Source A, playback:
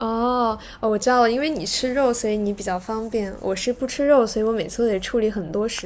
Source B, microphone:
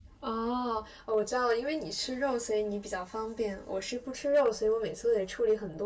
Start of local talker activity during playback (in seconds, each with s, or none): none